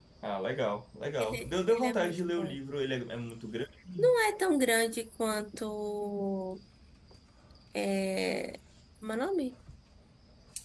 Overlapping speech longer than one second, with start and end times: 1.2-2.6

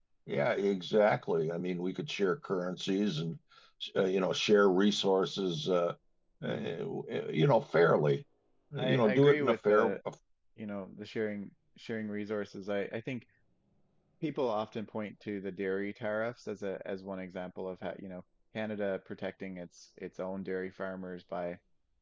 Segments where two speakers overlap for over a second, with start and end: 8.8-10.0

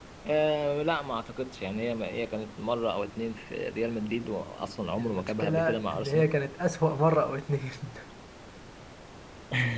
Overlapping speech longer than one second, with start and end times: 5.0-6.3

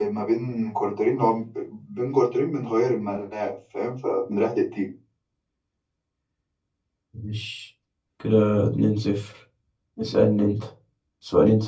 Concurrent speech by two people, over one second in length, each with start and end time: none

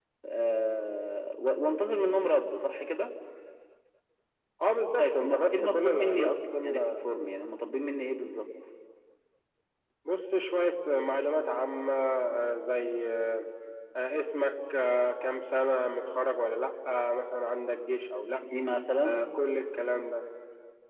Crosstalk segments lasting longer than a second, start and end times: 5.0-7.0

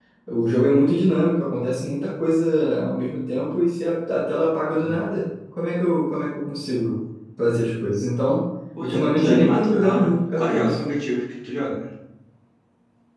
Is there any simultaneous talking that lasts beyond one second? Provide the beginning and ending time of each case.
8.8-10.8

